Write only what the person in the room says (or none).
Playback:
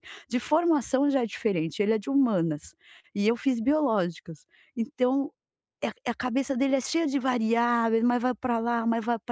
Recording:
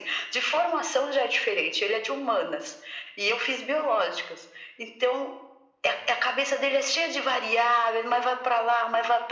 none